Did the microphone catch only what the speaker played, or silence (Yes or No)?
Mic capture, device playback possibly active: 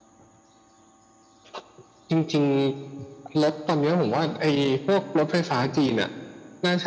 Yes